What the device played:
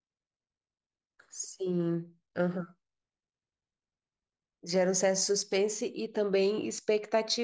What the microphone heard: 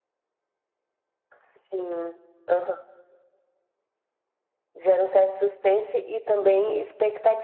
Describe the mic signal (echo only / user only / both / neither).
both